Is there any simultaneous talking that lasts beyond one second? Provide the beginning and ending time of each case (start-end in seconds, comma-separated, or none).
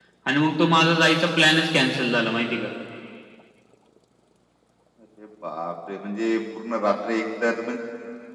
none